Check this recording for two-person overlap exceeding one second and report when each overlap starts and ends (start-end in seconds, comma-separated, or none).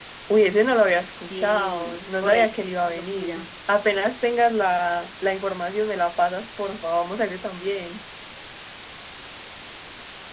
1.2-3.5